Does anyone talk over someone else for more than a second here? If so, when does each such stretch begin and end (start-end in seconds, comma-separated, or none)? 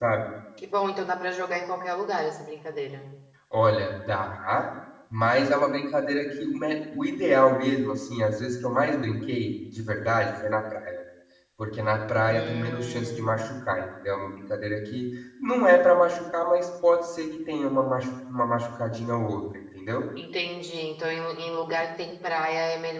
12.3-13.5